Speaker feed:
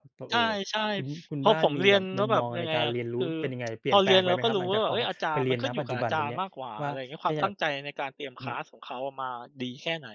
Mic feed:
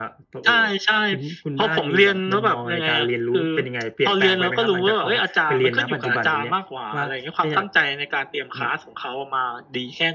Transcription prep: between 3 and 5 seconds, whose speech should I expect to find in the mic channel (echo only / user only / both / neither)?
echo only